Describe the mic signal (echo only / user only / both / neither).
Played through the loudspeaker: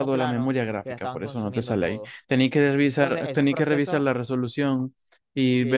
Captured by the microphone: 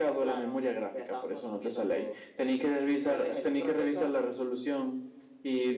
echo only